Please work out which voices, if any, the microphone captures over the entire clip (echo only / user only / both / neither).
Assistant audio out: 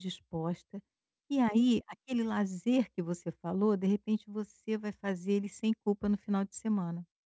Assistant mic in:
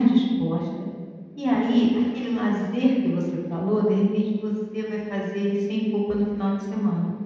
echo only